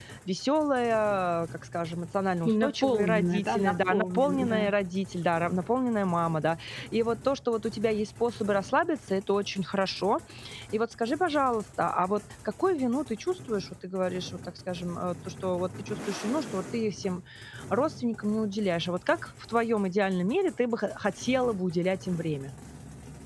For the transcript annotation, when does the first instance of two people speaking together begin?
2.5 s

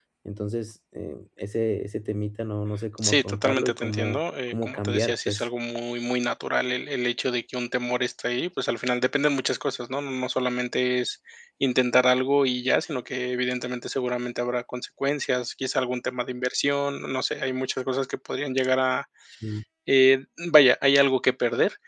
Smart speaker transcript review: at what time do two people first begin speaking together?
3.0 s

